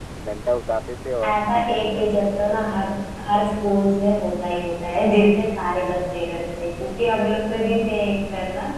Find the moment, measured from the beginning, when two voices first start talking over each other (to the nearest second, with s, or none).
1 s